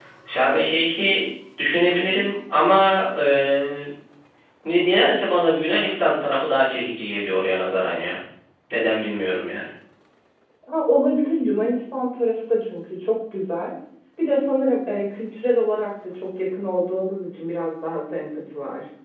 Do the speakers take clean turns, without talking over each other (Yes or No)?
Yes